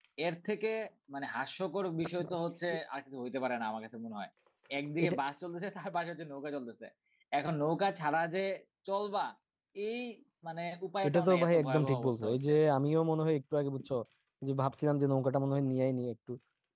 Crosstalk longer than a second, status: present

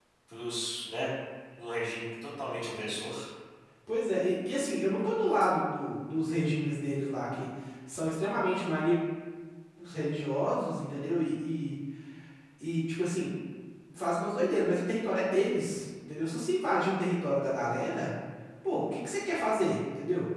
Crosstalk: none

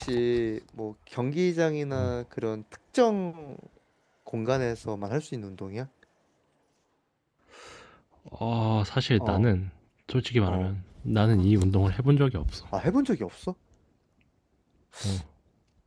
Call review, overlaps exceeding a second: none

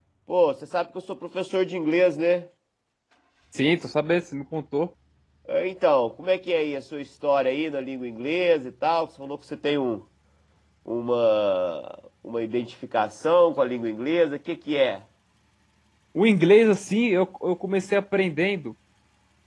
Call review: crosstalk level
none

